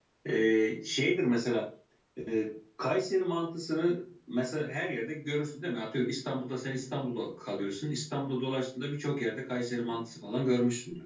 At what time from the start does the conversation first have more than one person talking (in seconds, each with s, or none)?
none